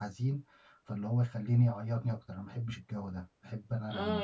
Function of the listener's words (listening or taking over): taking over